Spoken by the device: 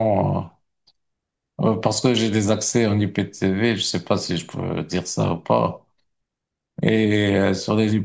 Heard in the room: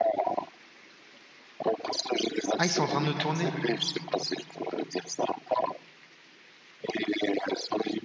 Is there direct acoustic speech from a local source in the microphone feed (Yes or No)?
Yes